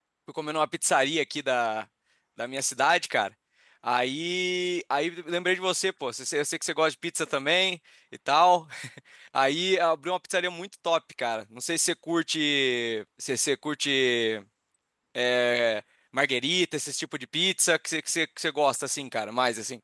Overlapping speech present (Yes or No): No